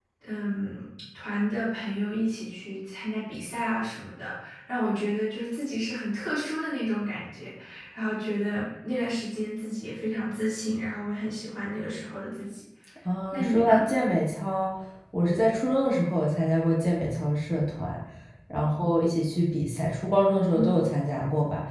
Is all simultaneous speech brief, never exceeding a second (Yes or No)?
Yes